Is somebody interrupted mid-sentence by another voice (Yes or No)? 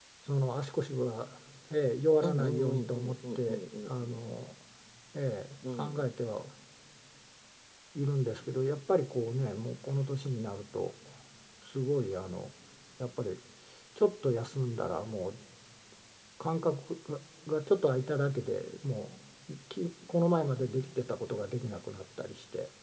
Yes